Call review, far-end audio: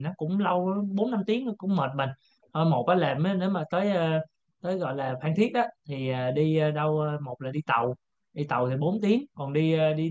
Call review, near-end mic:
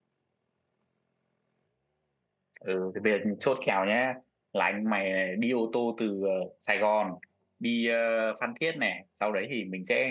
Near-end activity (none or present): present